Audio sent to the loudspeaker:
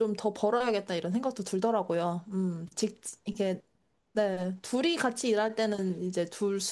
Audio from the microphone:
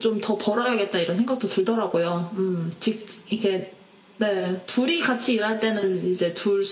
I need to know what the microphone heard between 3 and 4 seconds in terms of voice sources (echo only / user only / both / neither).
echo only